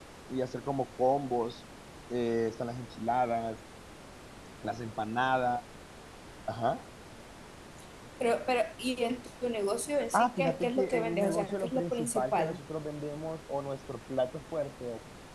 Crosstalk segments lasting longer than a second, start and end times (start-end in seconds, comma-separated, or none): 10.1-12.6